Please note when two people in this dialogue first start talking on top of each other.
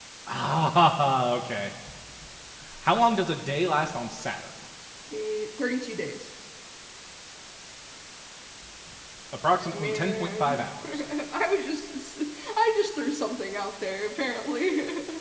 10 s

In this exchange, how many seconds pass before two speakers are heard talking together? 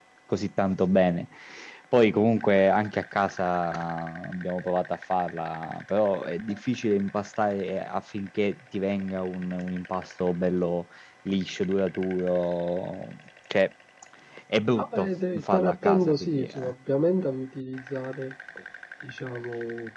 15 s

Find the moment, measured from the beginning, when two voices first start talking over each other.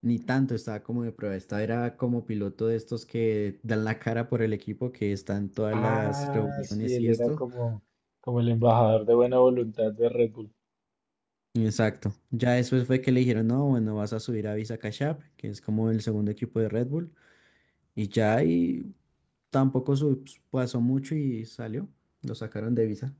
6 s

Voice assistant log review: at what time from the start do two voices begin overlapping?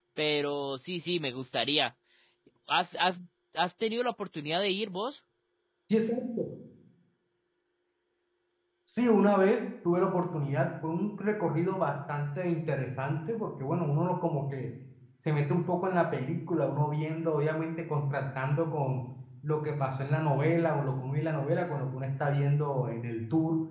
none

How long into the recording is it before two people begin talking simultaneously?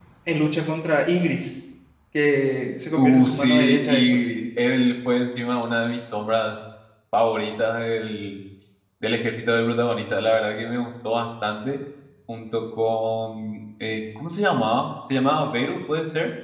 3 s

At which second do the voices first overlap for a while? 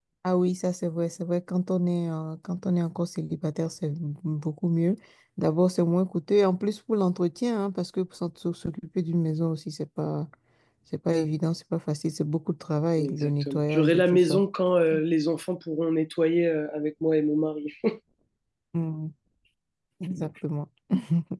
13 s

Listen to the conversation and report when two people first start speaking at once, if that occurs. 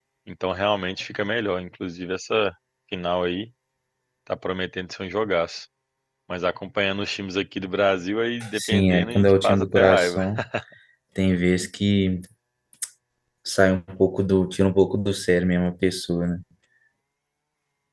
9 s

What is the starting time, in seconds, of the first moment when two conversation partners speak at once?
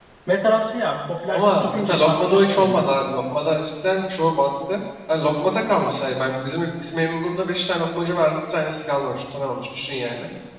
1 s

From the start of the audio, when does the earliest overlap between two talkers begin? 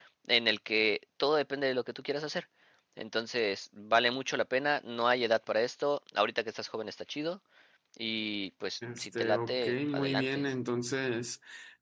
9 s

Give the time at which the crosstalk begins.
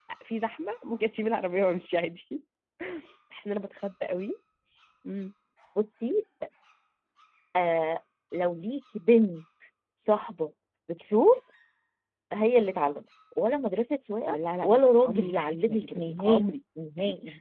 14 s

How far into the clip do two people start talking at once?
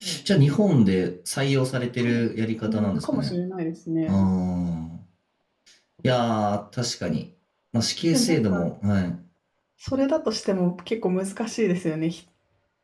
2 s

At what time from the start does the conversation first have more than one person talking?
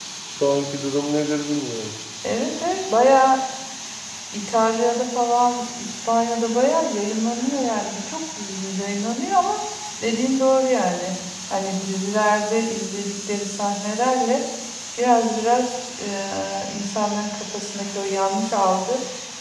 none

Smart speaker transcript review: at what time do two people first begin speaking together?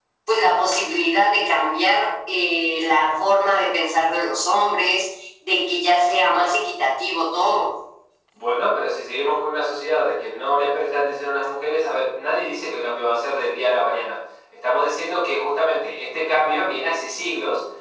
none

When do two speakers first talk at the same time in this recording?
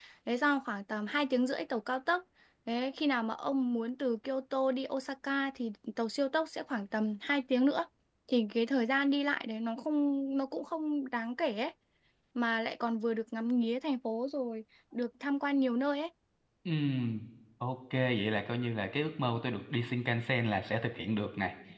none

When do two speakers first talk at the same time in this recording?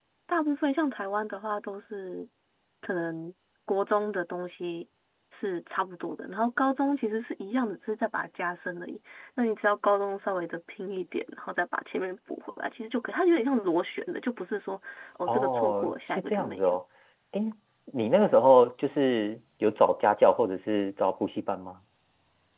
15 s

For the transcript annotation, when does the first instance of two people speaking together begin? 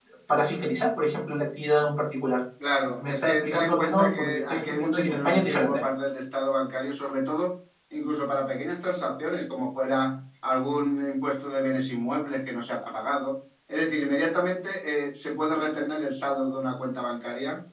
3 s

